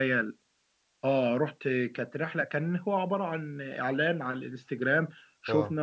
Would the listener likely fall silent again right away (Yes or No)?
Yes